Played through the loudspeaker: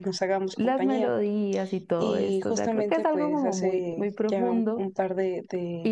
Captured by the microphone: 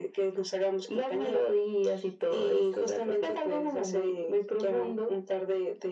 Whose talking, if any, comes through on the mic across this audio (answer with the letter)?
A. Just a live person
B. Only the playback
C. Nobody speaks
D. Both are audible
B